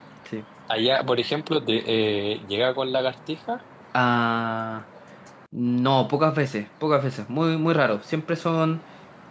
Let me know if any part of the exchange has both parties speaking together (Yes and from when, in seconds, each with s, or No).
No